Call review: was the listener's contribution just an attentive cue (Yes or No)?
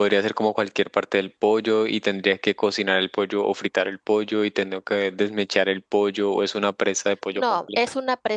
No